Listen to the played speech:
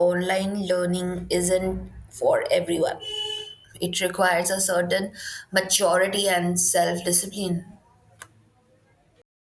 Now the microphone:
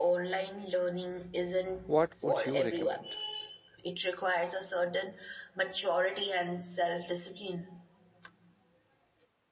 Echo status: present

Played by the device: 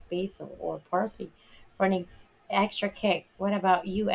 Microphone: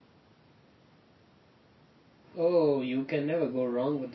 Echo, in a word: none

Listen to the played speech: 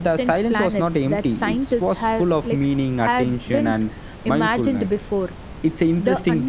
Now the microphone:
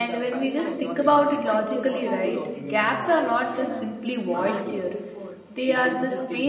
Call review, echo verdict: present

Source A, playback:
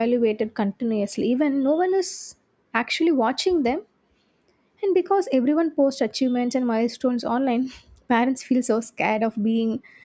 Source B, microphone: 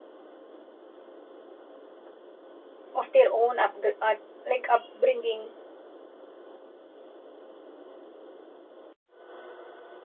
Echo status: none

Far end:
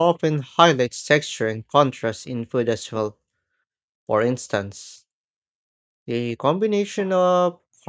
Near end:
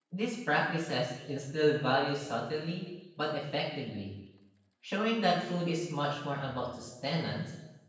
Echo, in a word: none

